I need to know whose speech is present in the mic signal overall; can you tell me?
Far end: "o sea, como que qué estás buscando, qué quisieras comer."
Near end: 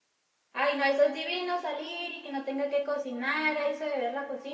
user only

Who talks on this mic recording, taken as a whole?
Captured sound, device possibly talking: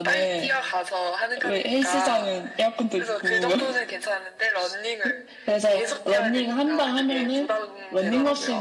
both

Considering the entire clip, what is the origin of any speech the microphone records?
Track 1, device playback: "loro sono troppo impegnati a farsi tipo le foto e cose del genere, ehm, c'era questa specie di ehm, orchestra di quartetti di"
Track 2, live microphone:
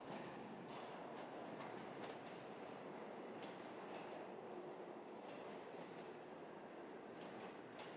neither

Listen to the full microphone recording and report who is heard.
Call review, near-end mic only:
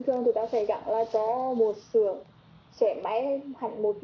echo only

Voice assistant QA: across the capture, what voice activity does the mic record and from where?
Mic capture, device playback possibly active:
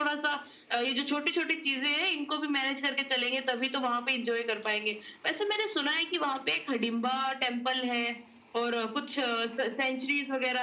echo only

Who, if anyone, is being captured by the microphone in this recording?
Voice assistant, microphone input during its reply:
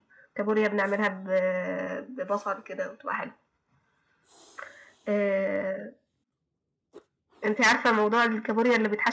echo only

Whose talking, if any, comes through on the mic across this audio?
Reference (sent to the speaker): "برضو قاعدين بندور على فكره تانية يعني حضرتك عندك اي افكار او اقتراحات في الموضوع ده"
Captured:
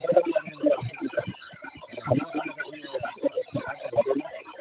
echo only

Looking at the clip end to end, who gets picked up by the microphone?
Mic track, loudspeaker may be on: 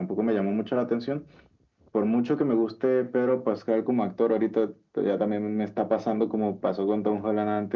echo only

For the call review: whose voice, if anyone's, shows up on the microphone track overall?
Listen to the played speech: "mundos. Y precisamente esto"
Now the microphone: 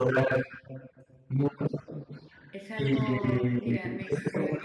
both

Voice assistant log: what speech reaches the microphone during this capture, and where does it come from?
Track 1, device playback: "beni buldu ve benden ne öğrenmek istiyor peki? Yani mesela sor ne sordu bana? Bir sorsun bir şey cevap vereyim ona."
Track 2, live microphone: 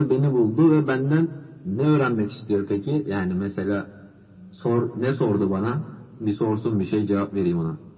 echo only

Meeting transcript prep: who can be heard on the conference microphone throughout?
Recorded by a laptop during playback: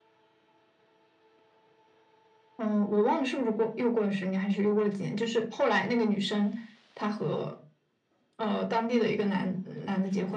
echo only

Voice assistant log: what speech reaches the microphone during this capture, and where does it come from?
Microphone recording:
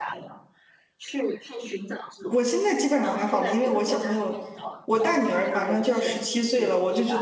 both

